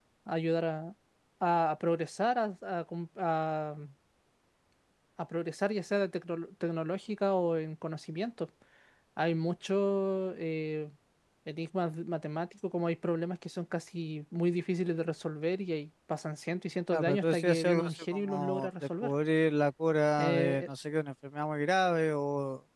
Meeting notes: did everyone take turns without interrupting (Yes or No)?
No